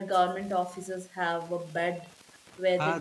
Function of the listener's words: taking over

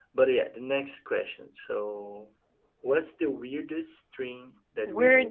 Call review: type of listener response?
taking over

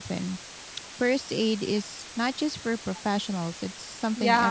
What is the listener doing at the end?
taking over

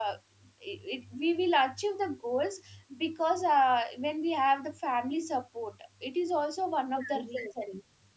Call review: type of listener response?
taking over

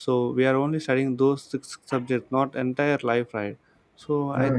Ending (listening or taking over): listening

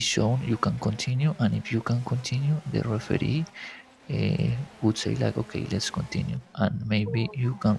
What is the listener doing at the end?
listening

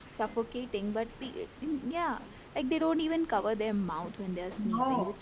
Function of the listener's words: listening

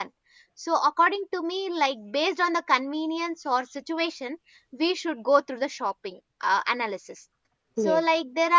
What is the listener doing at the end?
listening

